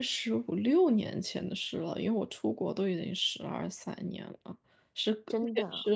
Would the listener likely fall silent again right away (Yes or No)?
Yes